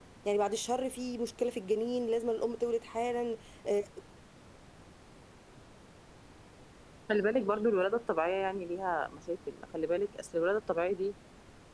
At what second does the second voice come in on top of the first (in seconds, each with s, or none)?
none